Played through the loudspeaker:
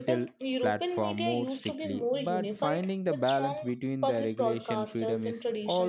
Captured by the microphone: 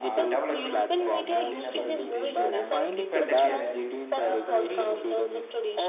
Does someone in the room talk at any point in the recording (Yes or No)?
Yes